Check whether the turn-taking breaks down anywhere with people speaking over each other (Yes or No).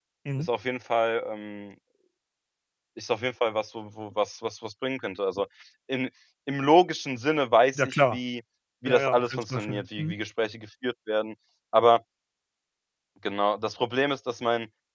Yes